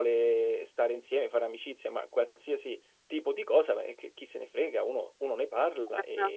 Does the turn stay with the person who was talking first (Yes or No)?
No